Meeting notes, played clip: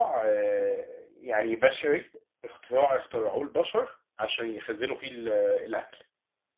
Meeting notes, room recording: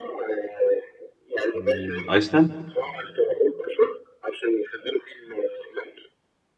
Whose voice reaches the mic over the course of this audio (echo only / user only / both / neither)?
both